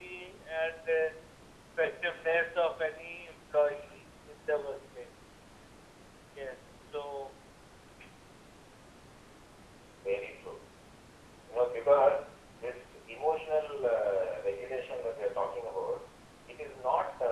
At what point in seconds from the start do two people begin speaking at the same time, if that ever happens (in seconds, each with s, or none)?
none